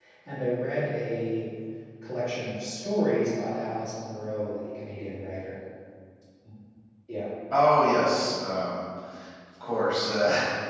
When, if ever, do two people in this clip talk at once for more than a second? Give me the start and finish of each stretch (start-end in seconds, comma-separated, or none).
none